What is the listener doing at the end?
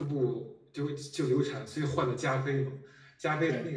listening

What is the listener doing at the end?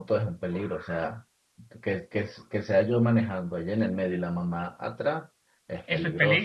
taking over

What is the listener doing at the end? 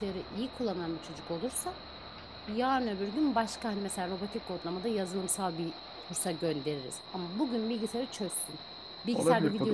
taking over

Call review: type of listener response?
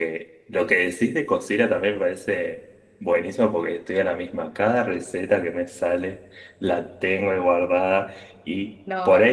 listening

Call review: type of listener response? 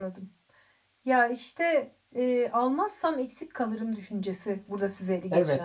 taking over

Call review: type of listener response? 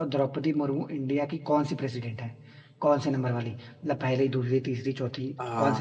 taking over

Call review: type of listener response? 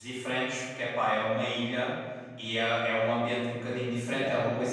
listening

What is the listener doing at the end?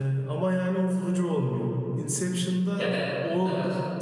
listening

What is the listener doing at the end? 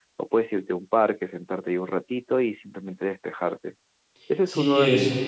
taking over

